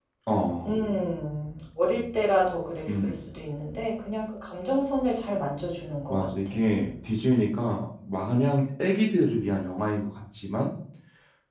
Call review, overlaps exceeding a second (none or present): none